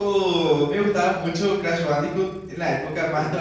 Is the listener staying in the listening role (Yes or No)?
Yes